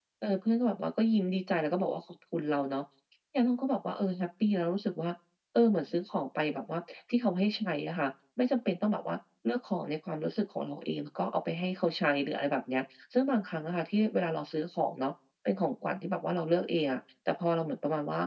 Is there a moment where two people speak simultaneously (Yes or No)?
No